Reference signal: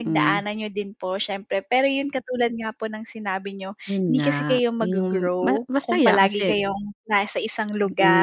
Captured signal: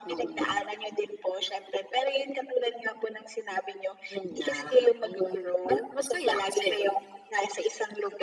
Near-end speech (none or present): none